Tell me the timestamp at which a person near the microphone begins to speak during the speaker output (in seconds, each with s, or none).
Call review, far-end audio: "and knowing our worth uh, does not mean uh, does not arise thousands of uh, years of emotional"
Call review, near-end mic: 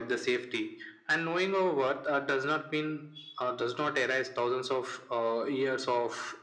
none